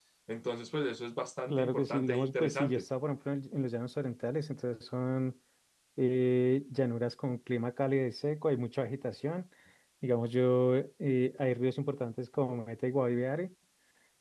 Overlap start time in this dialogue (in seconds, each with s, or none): 1.5 s